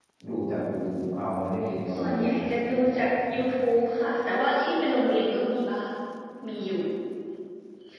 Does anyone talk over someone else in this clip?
Yes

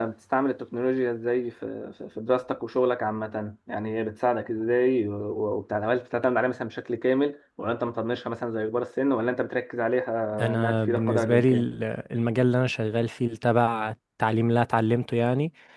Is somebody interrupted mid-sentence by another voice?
Yes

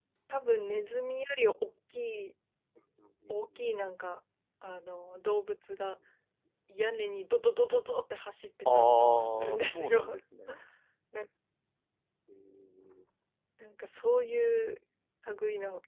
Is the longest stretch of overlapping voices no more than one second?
No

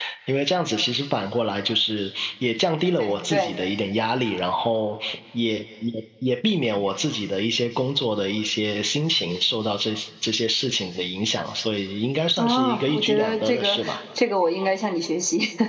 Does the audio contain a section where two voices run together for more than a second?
Yes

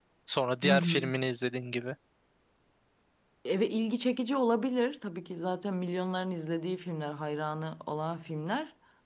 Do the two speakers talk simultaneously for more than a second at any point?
No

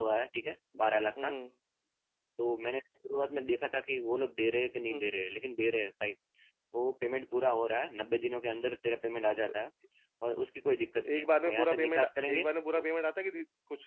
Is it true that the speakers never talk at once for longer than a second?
No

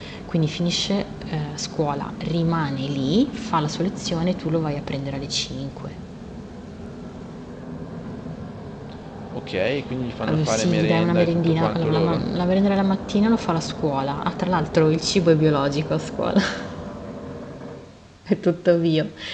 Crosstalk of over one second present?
Yes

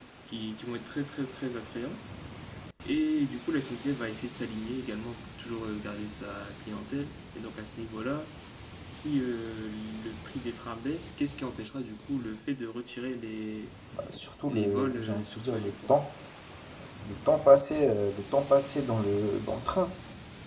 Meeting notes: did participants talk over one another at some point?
Yes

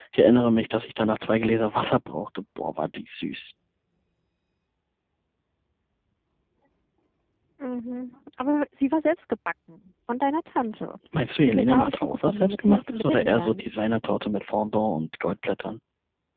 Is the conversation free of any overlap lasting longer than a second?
No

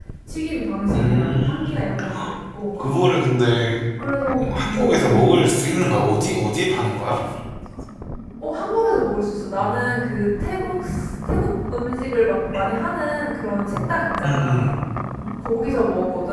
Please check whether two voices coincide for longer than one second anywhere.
Yes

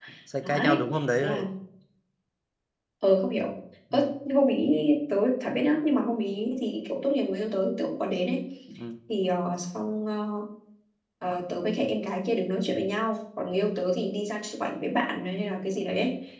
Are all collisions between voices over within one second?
Yes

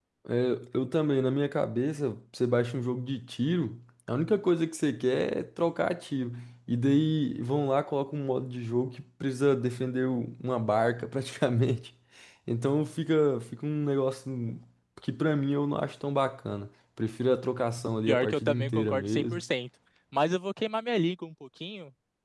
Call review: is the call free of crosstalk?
No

